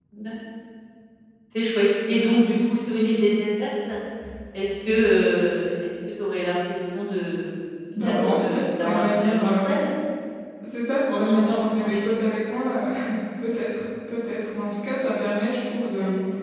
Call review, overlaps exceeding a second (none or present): present